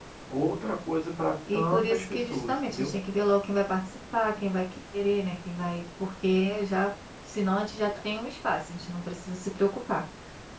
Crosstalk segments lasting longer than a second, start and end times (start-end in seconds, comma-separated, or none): 1.5-2.9